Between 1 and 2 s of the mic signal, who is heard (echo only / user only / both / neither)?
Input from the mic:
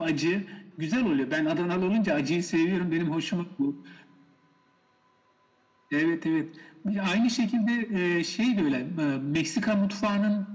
echo only